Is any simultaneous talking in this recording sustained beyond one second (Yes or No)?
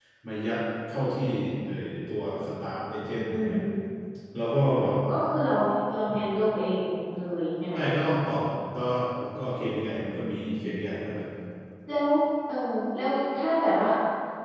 No